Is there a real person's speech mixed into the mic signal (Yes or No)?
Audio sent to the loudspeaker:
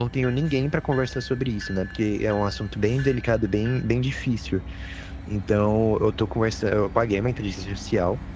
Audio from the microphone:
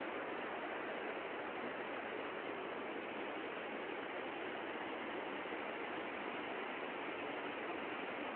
No